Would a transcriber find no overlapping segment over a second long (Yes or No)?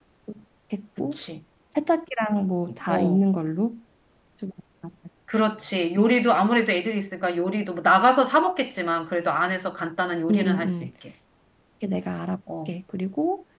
Yes